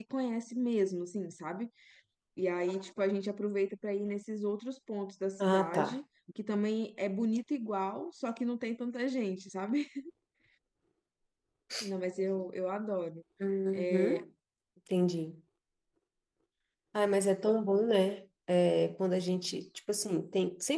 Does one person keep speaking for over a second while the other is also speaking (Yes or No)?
No